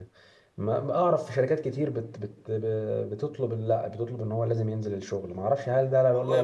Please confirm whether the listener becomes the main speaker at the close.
Yes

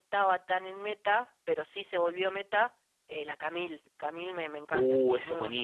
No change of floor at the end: No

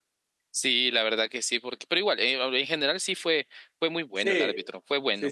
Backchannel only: No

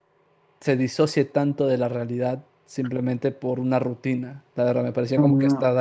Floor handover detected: Yes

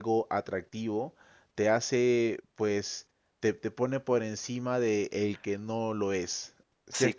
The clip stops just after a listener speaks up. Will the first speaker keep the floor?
No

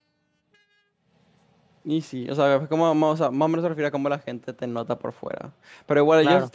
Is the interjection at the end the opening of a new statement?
No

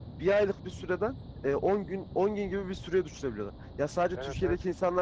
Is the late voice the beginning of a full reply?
No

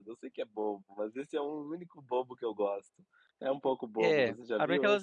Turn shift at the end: Yes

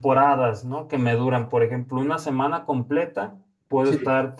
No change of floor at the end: Yes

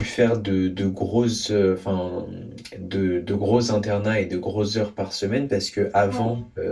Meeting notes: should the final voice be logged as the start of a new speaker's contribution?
No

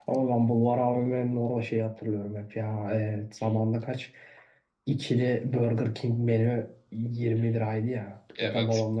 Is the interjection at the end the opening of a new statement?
No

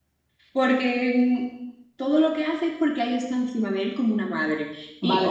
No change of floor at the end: No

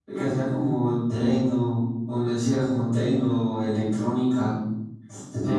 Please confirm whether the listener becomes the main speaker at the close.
Yes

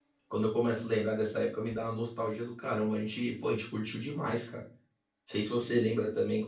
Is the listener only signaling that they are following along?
Yes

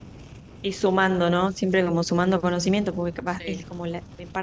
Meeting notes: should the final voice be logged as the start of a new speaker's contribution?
No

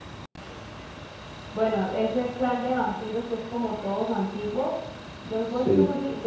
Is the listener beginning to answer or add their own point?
No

